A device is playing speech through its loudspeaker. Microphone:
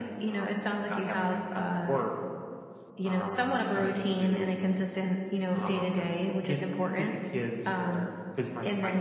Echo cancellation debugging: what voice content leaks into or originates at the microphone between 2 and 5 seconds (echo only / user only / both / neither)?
echo only